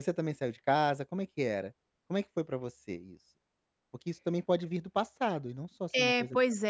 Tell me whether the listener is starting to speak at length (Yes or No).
Yes